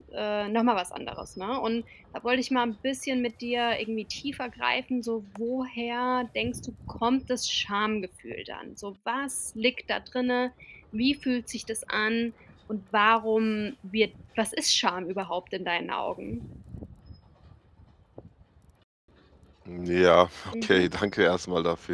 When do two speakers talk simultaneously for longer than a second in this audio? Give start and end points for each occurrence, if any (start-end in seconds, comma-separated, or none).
none